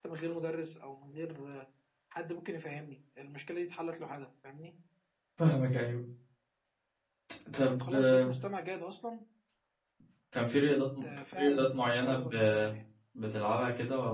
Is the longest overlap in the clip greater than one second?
Yes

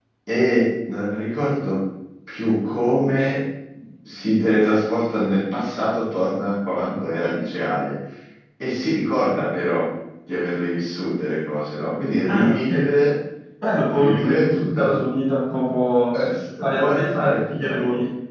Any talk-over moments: Yes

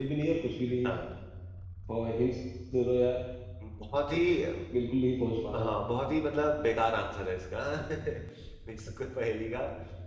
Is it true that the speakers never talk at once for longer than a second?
Yes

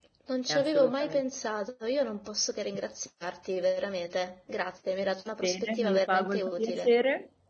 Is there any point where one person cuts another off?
Yes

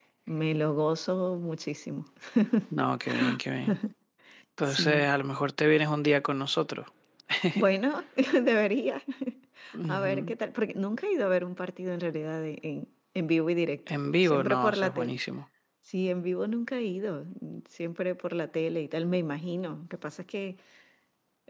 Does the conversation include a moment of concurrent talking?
Yes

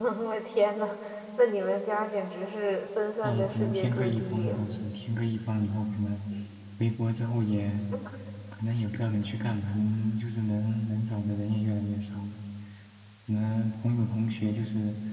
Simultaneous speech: Yes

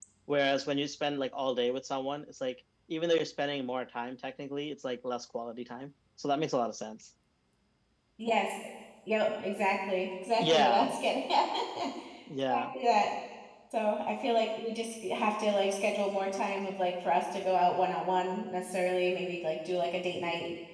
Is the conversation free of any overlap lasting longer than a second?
Yes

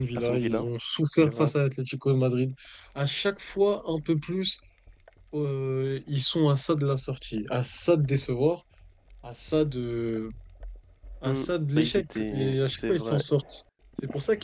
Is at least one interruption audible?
Yes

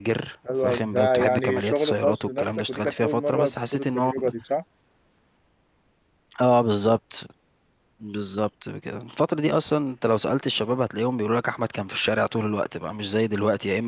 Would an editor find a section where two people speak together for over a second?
Yes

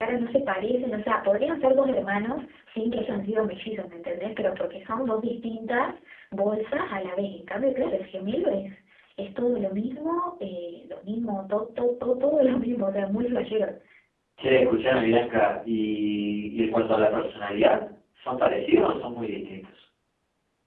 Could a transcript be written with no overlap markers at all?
Yes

